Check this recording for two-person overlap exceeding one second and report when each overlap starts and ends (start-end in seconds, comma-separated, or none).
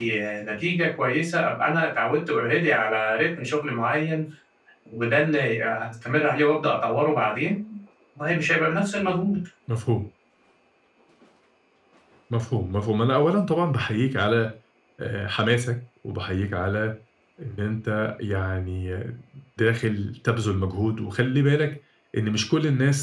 none